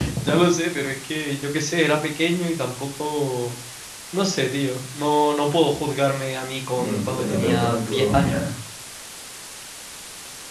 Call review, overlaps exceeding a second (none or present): present